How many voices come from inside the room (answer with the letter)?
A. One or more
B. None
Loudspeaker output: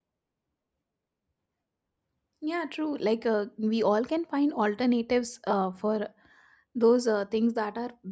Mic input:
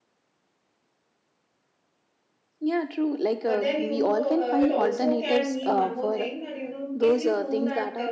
A